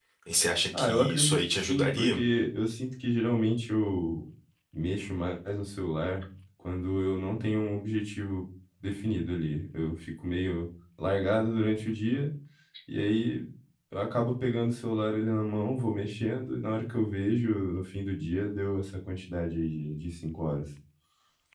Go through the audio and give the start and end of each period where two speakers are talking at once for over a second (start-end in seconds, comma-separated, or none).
0.8-2.2